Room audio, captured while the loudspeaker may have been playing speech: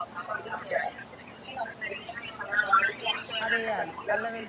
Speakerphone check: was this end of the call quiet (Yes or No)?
No